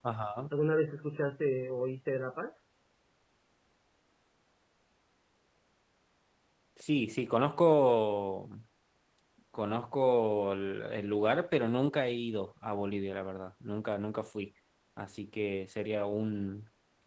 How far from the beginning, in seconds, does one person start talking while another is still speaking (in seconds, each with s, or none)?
none